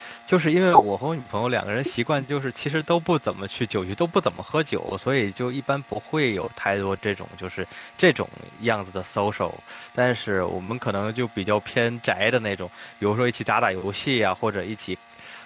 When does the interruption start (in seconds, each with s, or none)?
none